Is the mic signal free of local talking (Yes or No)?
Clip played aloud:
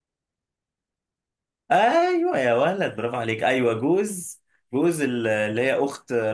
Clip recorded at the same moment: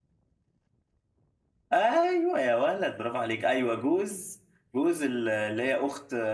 Yes